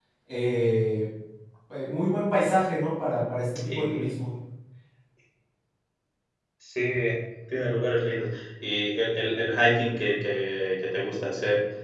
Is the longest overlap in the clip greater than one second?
No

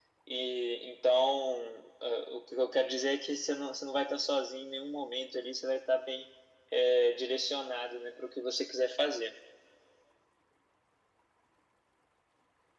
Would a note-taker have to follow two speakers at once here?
No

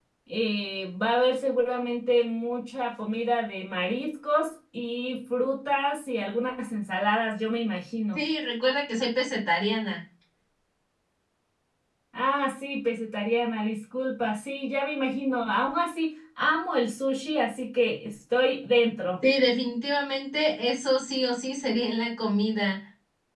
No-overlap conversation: Yes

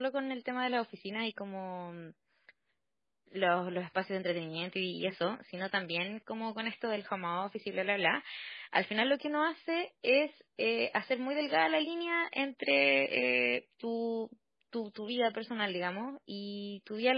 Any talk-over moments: No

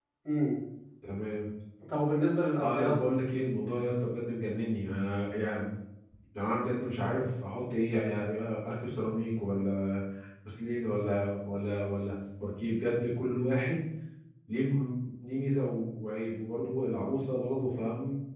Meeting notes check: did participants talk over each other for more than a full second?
No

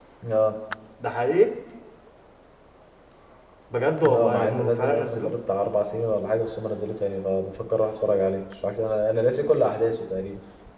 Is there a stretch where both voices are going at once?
Yes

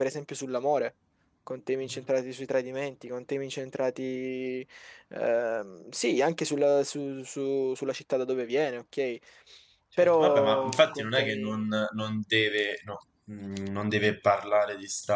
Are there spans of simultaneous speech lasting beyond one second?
Yes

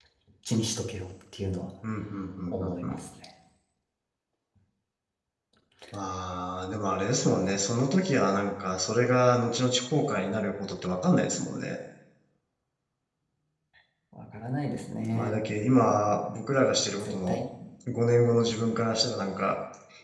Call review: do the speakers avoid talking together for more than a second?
Yes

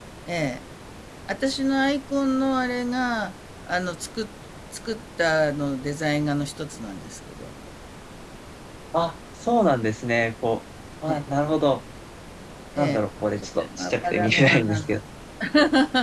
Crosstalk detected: Yes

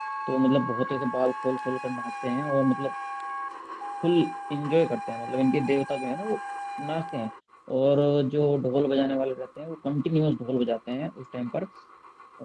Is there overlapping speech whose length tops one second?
No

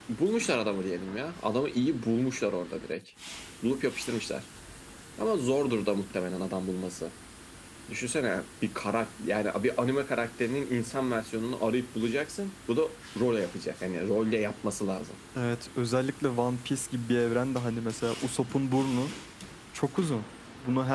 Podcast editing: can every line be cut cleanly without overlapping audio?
Yes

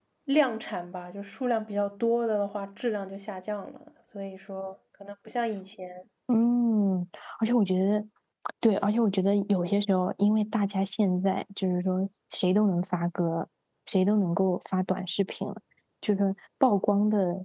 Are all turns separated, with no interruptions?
Yes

